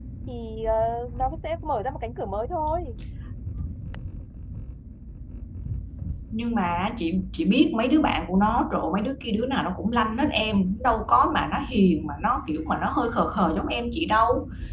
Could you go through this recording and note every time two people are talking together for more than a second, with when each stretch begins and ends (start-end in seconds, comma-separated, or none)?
none